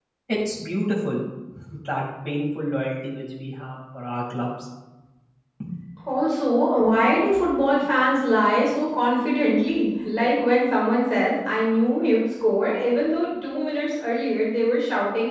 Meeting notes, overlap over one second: none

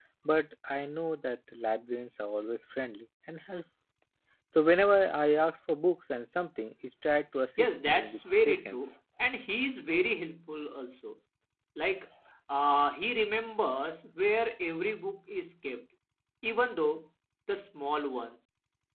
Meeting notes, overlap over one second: present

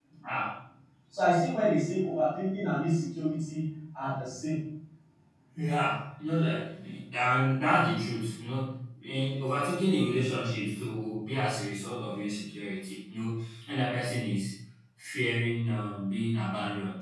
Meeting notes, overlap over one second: none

